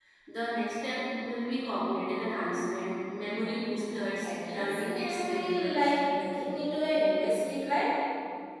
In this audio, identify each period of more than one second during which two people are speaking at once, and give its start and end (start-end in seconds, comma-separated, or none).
4.2-5.8